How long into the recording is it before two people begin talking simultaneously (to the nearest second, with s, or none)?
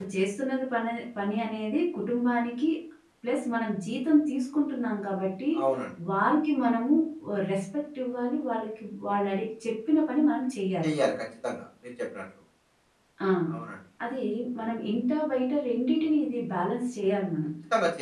none